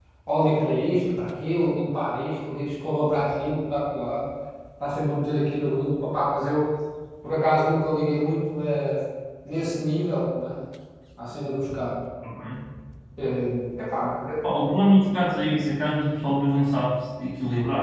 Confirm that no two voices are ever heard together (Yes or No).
Yes